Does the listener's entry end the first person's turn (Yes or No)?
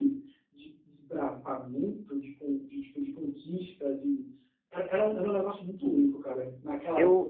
Yes